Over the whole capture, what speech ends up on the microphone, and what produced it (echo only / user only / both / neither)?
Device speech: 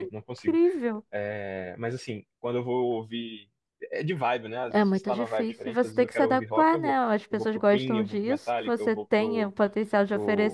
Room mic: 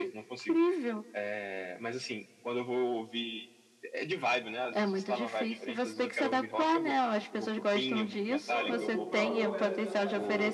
both